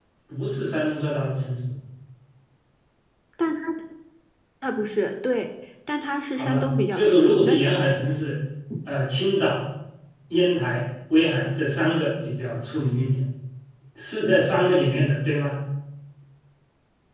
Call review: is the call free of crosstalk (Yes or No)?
No